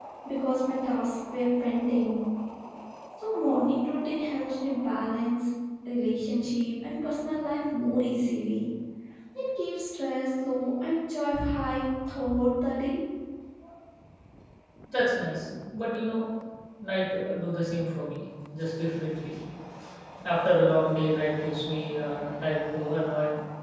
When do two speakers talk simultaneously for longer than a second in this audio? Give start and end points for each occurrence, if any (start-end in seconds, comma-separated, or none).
none